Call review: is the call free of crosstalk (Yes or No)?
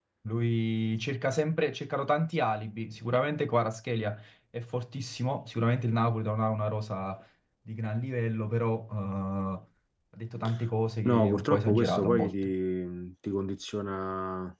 No